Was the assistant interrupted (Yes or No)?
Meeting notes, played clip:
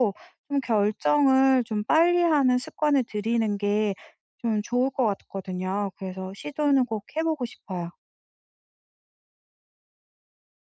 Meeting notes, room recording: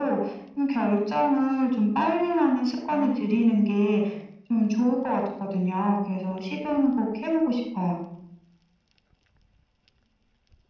Yes